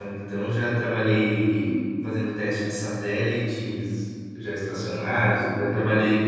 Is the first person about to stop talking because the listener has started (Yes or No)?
No